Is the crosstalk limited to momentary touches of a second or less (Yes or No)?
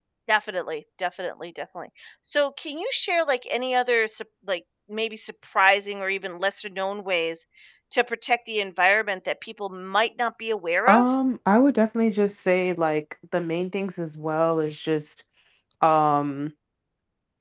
Yes